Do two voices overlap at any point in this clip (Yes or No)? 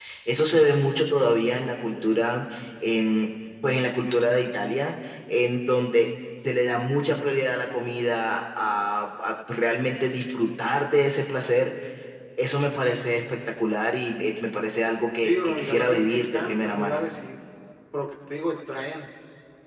Yes